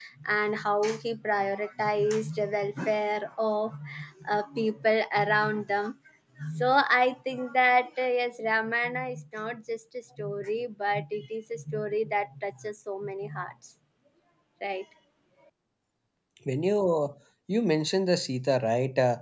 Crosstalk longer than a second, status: none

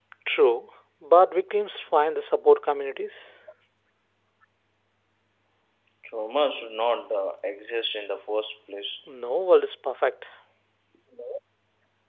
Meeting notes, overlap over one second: none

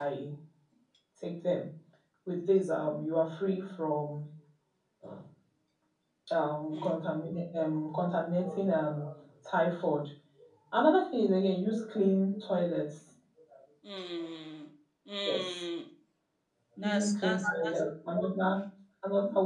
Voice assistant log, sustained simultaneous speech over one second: present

